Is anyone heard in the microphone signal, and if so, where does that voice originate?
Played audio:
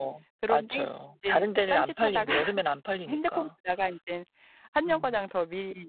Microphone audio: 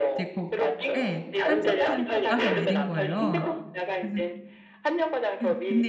both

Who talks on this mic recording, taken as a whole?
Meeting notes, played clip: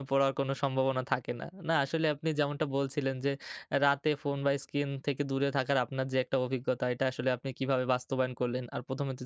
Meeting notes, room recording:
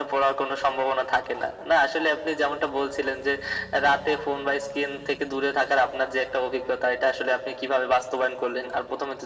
echo only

